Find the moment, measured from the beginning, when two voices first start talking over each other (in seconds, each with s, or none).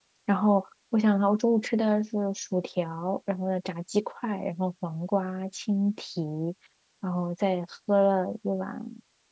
none